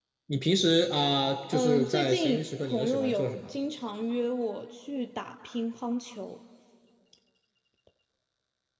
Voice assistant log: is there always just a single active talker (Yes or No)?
No